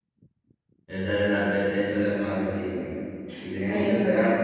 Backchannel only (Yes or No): Yes